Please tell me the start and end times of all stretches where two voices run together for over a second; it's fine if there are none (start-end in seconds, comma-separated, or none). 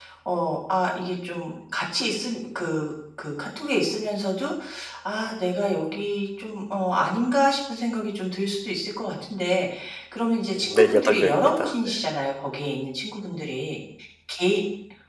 10.5-12.0